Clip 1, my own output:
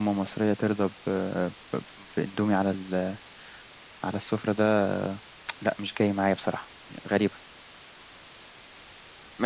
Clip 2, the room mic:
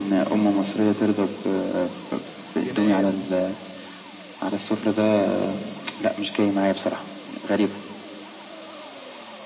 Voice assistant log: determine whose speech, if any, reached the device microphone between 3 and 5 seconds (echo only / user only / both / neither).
both